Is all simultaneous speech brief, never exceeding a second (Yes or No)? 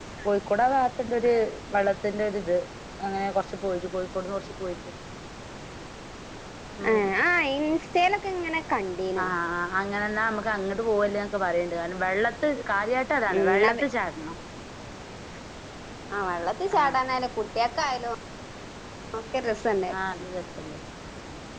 Yes